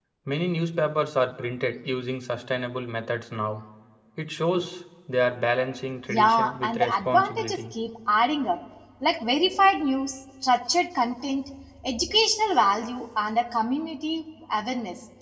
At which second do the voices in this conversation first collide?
6 s

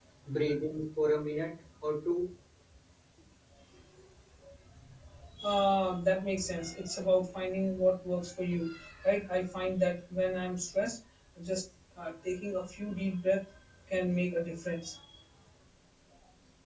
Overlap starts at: none

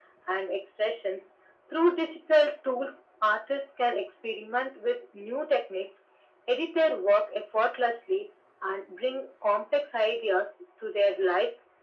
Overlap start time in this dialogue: none

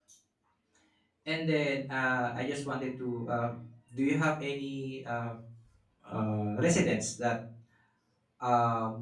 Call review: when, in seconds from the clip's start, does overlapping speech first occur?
none

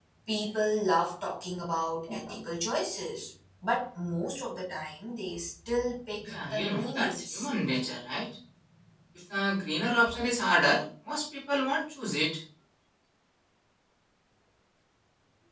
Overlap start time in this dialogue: 6 s

